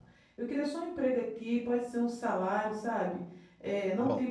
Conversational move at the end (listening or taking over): taking over